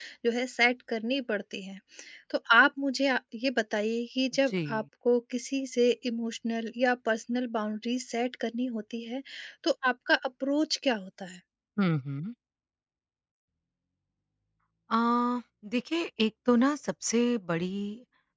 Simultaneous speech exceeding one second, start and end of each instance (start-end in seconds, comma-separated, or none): none